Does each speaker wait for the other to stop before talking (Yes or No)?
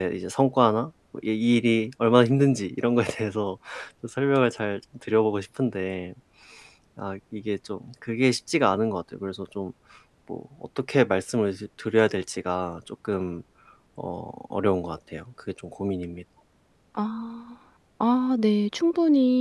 Yes